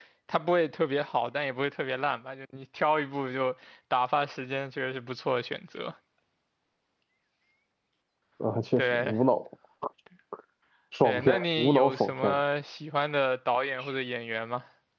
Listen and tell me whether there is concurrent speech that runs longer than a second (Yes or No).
Yes